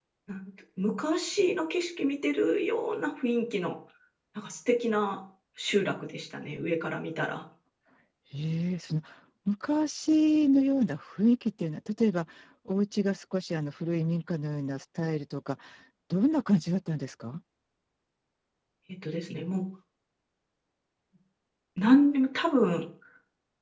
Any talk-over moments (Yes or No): No